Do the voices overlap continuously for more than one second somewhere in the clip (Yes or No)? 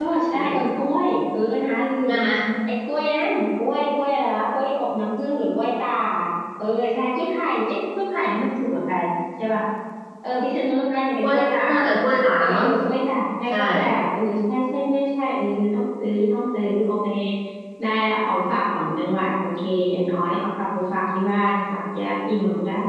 No